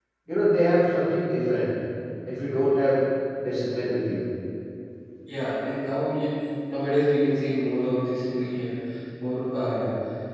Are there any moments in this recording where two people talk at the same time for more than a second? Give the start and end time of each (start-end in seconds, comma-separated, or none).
none